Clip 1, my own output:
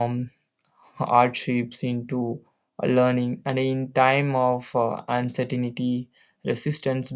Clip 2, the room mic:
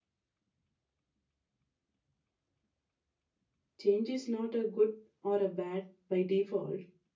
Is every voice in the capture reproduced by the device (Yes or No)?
No